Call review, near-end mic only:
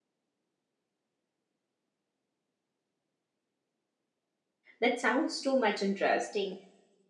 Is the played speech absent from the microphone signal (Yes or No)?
Yes